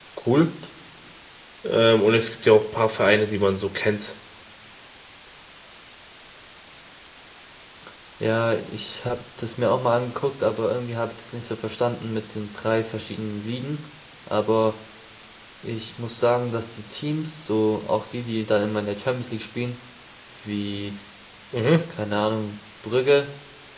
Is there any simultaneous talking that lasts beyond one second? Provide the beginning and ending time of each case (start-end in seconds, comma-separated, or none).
none